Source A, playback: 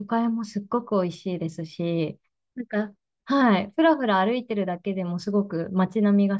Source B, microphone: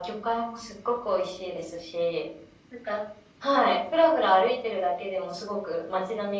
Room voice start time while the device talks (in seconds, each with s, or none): none